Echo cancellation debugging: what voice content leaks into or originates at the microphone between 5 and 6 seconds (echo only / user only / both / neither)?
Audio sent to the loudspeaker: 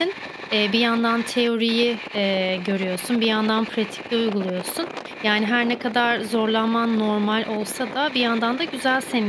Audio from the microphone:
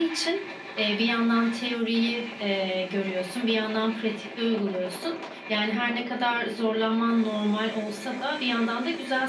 echo only